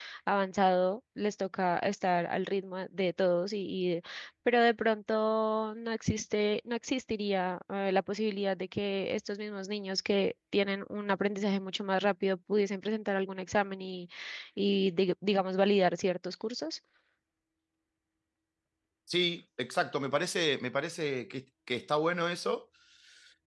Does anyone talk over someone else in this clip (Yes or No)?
No